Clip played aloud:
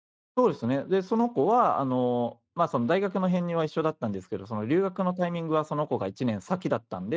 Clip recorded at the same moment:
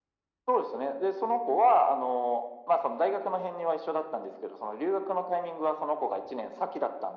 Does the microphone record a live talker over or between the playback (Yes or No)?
No